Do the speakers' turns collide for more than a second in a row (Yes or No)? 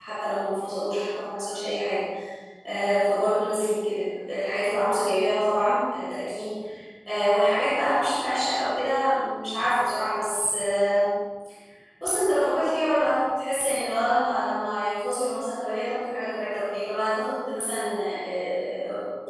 No